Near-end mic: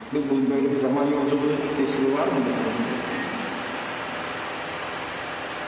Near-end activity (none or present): none